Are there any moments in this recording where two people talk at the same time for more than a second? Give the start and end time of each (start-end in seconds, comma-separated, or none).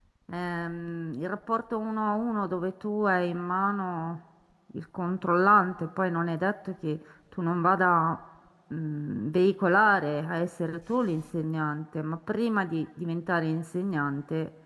none